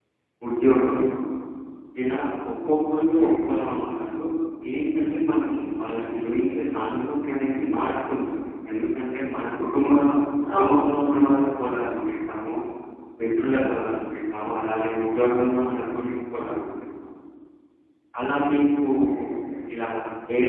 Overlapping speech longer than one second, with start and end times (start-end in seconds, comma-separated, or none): none